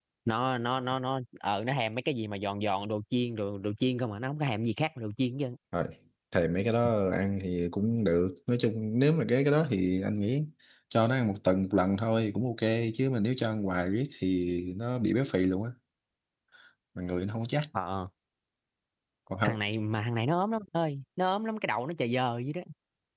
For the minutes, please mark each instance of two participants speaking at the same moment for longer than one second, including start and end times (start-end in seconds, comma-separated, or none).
none